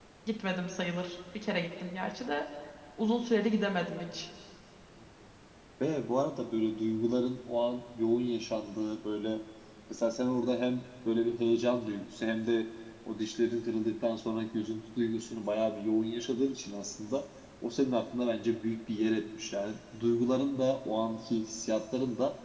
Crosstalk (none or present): none